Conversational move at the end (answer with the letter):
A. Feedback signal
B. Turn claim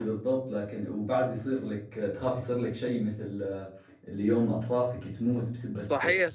B